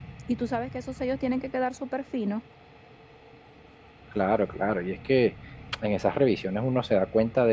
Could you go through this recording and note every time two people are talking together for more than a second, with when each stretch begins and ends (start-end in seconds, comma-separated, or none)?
none